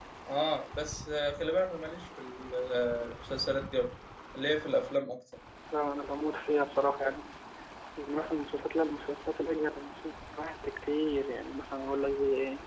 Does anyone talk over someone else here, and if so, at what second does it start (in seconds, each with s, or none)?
none